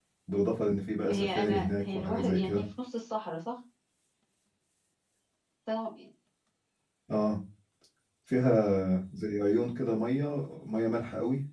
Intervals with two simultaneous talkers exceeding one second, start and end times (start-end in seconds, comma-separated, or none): 1.1-2.6